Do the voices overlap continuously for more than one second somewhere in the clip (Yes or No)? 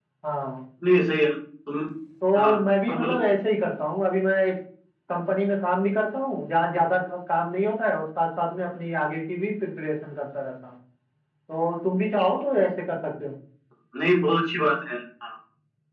No